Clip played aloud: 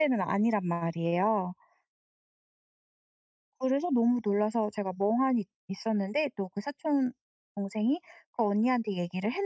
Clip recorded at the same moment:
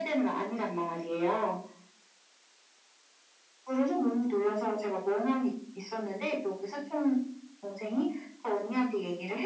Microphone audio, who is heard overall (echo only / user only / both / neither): echo only